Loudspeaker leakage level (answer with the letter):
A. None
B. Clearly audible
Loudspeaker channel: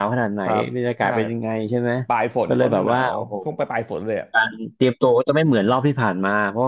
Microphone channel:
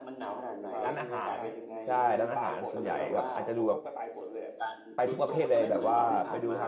B